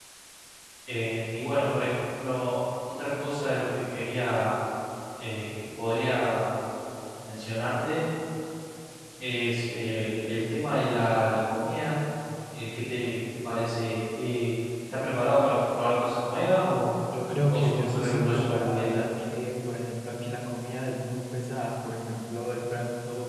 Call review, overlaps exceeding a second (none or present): present